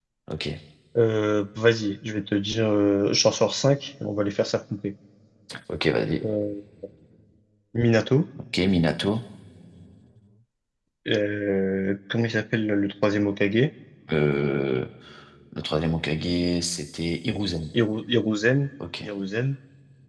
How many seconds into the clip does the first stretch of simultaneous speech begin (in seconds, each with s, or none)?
none